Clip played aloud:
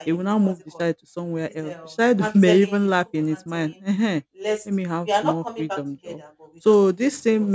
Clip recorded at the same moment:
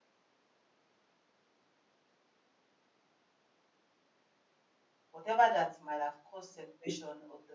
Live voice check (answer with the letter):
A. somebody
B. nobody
A